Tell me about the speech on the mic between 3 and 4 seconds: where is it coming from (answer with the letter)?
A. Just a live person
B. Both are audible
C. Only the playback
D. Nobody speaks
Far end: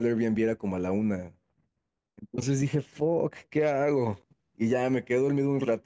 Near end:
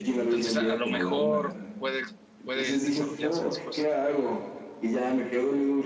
B